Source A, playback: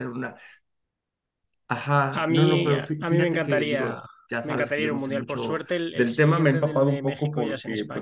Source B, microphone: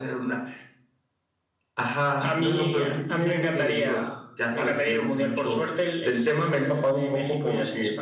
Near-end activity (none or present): none